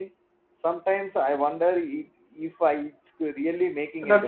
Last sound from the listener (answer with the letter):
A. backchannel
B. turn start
B